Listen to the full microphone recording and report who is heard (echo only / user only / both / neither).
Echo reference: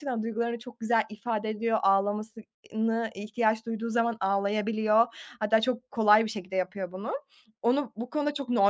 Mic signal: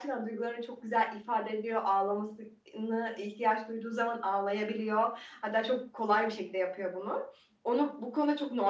echo only